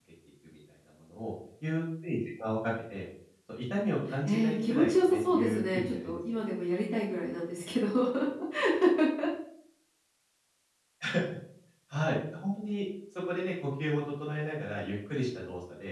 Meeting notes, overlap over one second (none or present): present